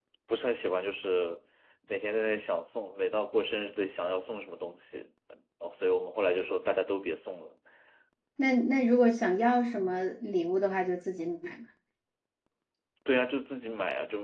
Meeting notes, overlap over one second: none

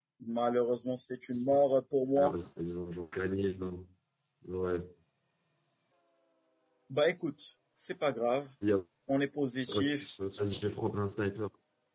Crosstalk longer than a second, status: none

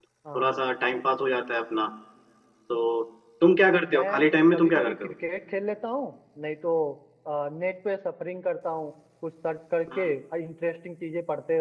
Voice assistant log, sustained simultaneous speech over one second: present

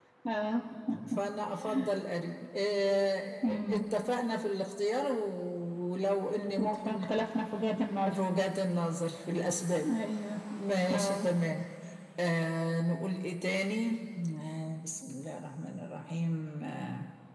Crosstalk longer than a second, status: none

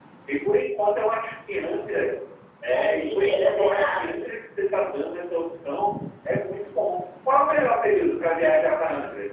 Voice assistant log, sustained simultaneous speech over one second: present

